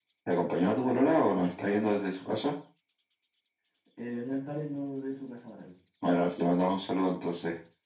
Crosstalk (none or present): none